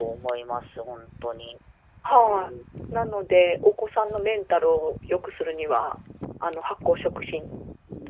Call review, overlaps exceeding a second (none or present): none